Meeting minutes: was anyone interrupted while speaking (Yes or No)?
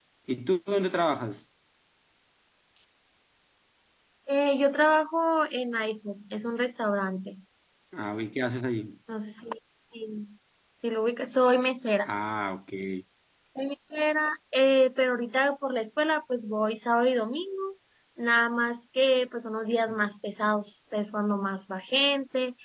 No